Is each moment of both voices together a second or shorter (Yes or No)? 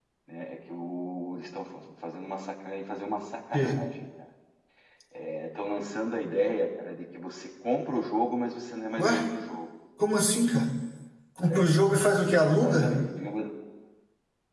Yes